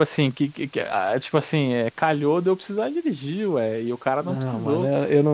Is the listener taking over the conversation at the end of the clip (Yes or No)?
Yes